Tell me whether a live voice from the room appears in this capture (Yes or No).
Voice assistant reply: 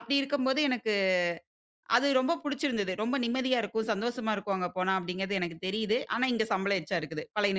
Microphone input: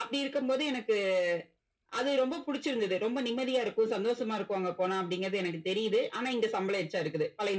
No